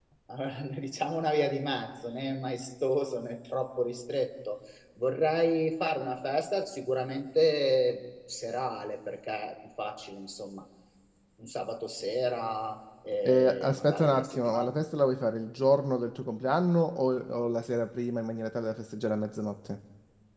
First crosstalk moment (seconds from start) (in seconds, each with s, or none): 13.2 s